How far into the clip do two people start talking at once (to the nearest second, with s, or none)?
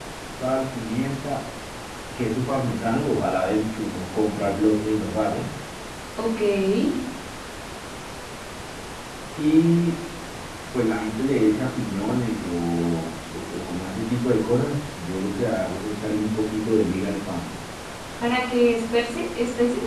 none